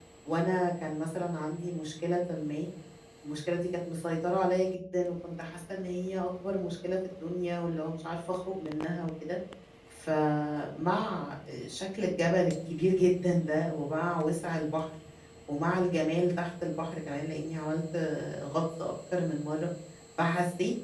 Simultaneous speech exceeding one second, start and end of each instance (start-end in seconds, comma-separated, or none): none